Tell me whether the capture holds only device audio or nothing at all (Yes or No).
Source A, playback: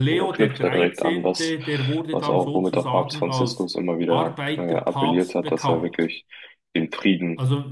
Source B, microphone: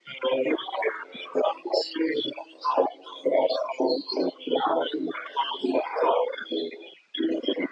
Yes